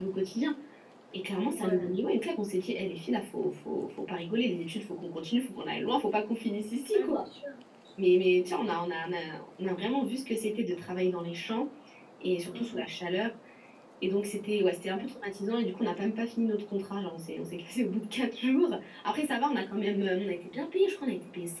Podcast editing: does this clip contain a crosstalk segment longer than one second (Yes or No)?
No